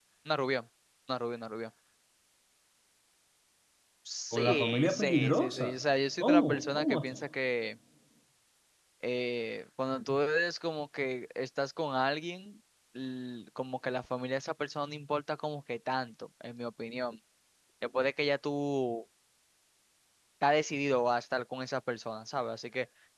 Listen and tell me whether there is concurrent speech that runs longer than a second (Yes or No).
Yes